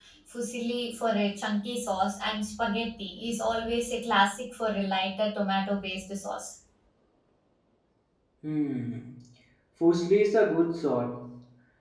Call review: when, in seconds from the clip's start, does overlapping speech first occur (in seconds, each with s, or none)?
none